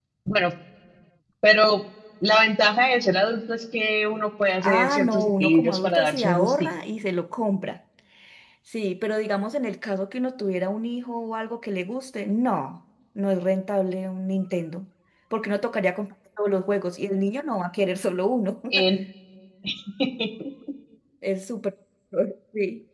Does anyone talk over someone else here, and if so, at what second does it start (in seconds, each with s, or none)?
4.6 s